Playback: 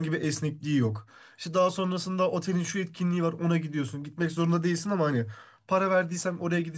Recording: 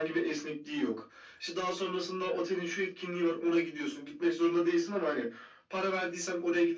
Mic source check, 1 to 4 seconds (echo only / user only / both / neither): echo only